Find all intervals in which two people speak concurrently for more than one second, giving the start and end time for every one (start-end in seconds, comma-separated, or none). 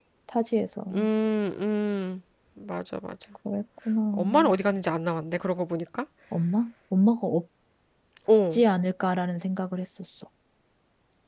none